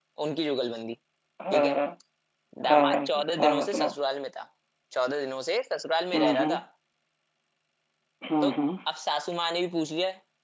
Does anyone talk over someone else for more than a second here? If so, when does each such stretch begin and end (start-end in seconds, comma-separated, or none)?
2.7-3.9